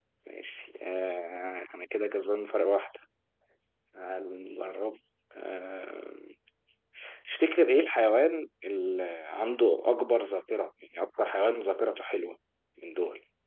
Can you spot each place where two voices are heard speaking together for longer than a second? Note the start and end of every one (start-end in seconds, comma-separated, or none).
none